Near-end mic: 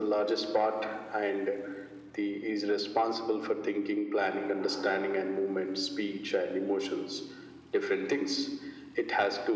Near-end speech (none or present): none